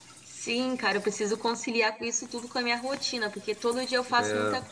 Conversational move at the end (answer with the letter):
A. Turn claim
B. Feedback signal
B